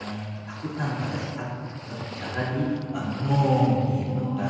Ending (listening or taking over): taking over